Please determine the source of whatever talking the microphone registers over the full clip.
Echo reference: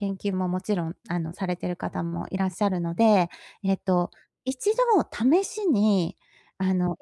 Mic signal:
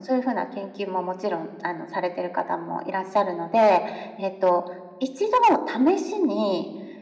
echo only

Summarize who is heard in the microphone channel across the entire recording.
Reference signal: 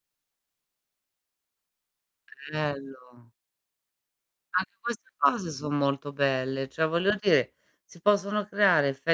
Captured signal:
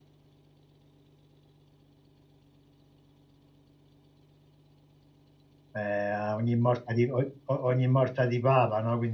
user only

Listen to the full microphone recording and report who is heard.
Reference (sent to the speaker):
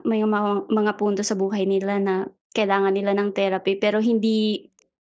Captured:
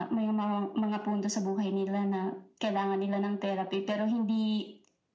echo only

